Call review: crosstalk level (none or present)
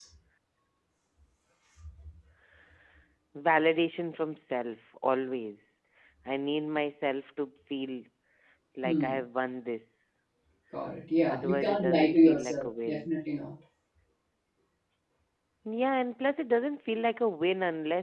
present